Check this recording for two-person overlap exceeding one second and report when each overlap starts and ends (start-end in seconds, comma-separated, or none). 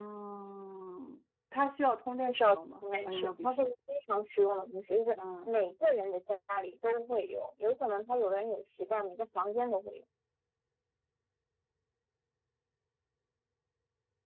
2.3-3.7